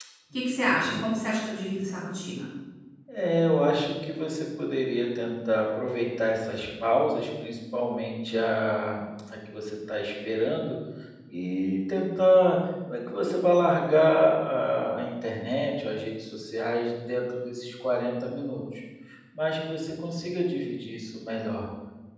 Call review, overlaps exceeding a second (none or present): none